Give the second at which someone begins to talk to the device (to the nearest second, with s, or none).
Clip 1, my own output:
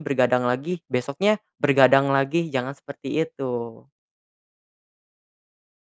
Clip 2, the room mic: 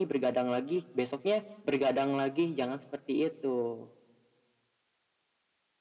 none